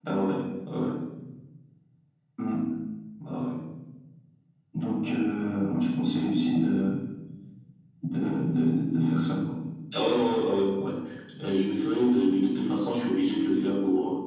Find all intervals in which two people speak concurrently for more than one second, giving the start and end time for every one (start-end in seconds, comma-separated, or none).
none